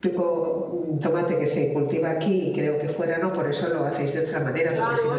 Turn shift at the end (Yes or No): Yes